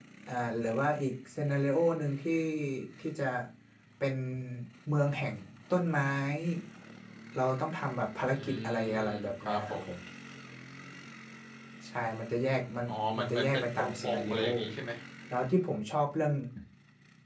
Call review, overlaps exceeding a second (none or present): present